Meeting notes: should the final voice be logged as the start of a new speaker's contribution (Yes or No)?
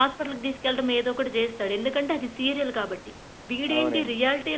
No